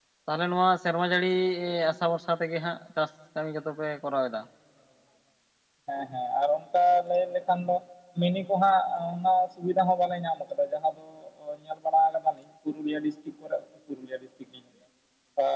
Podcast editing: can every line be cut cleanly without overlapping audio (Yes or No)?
Yes